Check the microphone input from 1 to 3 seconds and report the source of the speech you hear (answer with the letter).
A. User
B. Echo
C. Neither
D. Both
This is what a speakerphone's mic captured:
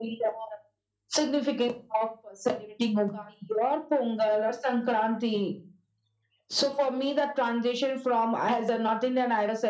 B